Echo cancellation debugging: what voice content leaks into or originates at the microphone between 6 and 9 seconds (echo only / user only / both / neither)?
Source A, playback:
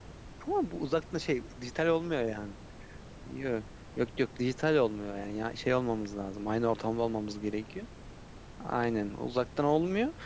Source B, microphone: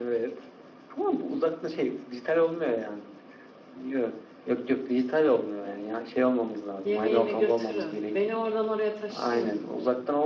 both